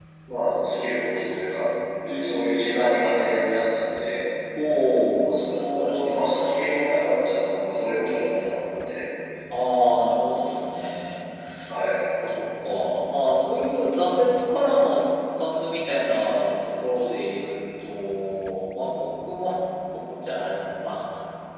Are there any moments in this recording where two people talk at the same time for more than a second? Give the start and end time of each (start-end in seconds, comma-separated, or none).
5.2-6.7